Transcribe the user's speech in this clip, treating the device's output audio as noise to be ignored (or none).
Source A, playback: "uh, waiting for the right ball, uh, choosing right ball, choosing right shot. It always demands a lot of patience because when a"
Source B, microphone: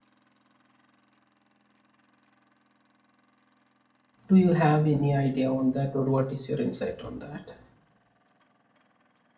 Do you have any idea on that, or what is your insight on that?